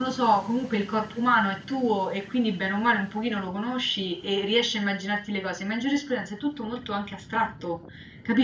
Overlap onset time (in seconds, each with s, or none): none